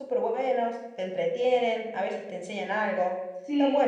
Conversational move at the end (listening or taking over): taking over